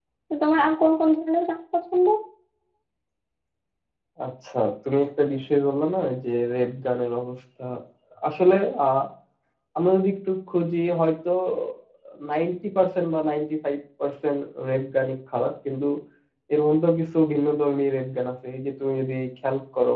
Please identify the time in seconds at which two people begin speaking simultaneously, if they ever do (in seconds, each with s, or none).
none